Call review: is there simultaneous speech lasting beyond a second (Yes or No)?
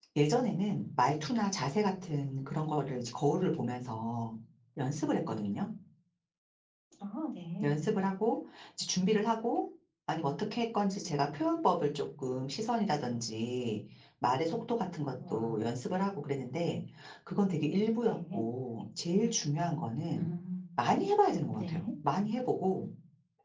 No